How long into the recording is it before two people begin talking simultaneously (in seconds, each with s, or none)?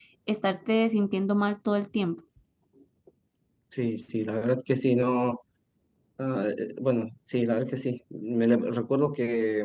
none